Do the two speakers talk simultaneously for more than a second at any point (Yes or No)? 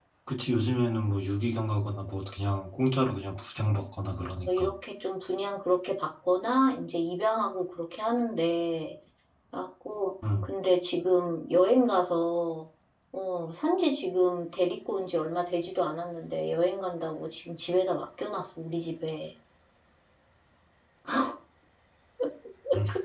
No